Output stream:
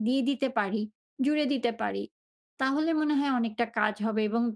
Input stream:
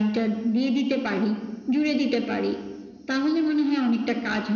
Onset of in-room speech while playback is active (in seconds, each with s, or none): none